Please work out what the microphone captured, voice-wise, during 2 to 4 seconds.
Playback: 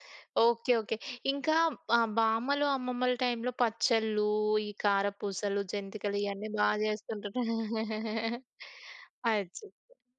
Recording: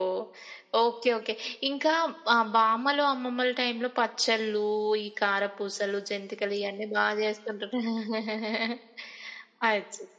echo only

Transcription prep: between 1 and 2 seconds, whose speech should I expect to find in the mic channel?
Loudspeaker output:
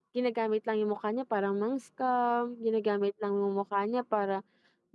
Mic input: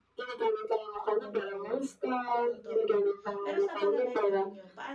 both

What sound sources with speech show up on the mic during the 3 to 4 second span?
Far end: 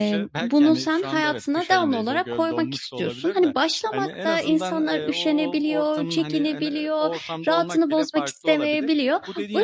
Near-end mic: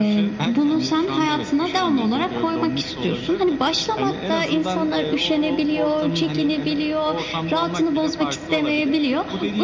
echo only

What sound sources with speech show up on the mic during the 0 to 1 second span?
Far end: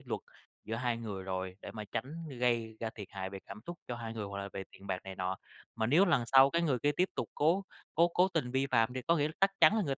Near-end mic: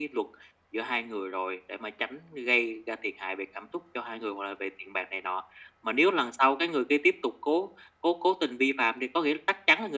echo only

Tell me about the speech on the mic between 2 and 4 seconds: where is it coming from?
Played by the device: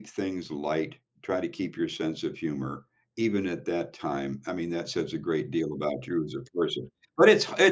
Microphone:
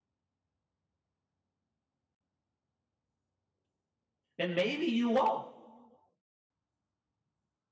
neither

